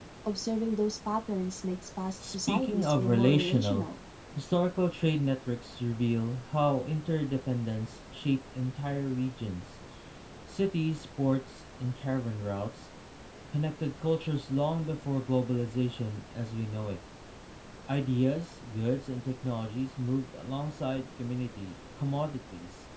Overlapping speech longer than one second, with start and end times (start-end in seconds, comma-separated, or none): 2.3-3.9